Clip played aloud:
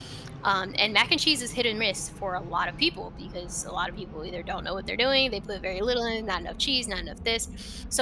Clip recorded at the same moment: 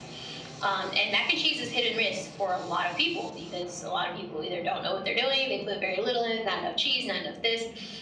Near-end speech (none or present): none